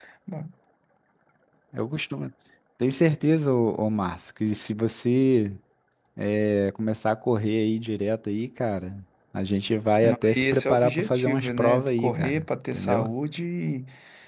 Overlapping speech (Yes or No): Yes